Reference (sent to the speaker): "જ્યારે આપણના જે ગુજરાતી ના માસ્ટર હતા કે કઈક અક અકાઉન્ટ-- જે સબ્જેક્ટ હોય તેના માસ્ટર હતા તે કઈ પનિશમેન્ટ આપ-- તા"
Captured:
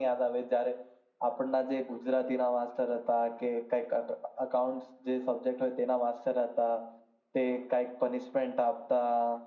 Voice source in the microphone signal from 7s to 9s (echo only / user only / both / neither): echo only